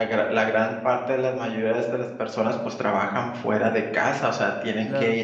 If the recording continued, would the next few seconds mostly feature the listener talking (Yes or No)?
No